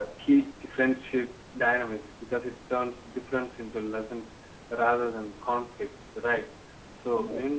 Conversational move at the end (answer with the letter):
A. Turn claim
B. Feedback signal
B